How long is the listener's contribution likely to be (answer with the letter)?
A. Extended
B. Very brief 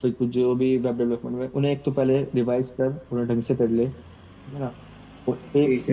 B